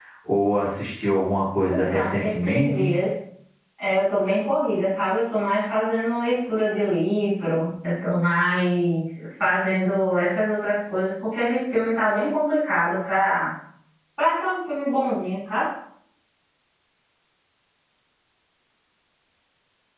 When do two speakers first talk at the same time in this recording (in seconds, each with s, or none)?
1.6 s